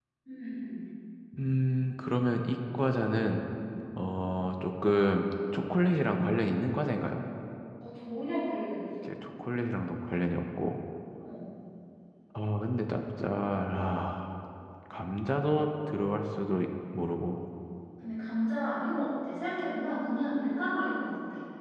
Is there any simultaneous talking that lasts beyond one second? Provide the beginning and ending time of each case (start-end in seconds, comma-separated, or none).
none